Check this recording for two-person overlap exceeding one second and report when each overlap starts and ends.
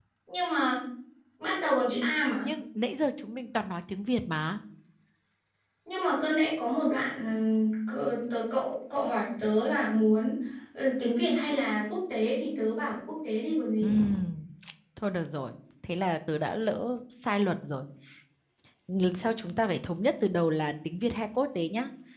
none

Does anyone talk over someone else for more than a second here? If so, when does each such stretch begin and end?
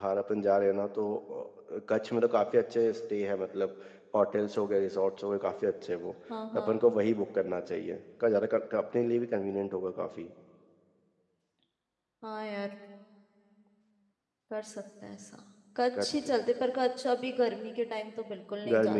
none

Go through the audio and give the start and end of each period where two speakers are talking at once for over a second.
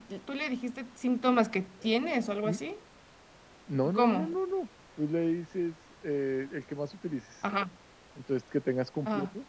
none

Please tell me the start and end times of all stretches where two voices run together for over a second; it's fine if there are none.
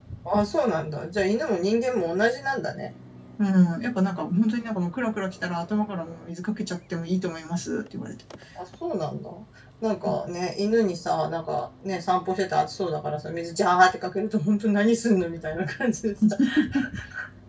none

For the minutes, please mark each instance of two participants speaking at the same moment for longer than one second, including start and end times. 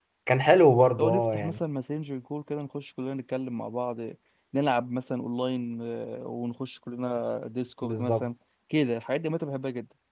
none

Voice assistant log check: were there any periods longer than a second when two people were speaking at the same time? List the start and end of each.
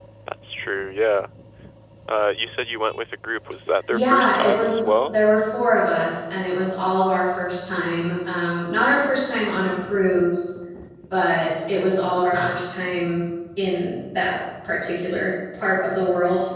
3.9-5.2

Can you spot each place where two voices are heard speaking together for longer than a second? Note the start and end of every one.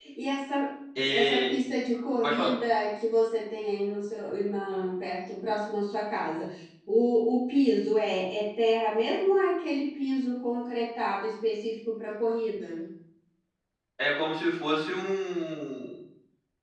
none

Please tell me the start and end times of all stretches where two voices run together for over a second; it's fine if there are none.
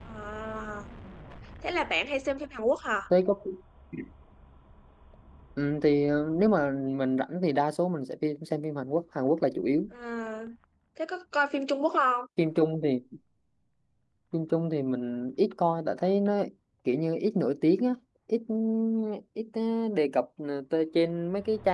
none

